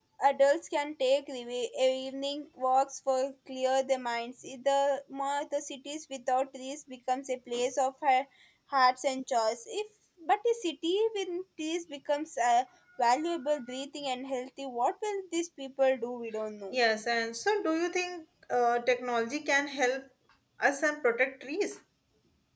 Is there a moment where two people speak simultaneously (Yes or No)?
No